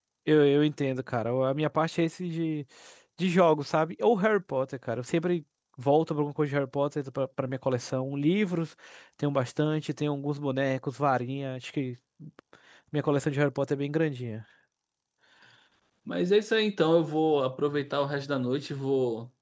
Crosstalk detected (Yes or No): No